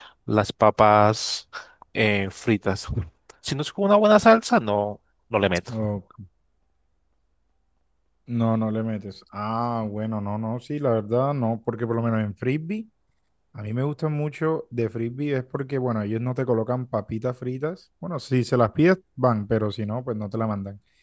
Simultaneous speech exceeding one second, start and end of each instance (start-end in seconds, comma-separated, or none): none